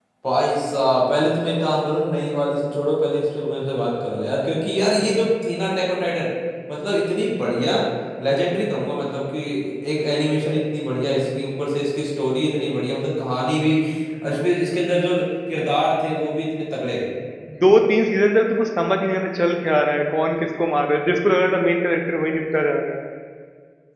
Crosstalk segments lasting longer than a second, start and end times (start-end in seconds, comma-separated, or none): none